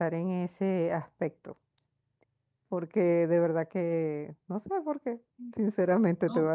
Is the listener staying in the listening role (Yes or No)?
Yes